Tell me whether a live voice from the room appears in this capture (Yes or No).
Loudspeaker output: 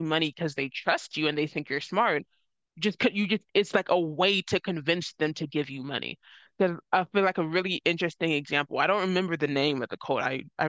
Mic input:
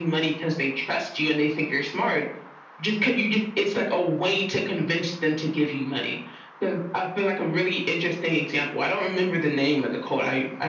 No